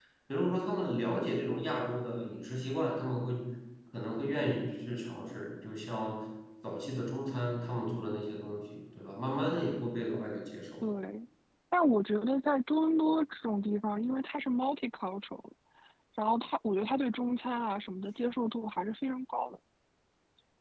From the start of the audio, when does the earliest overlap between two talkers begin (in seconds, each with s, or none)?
none